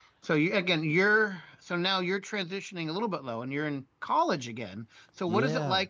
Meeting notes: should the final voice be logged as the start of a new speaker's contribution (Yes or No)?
No